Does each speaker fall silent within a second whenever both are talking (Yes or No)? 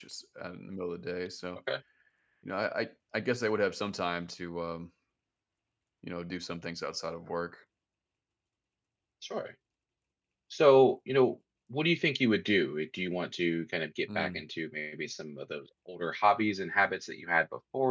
Yes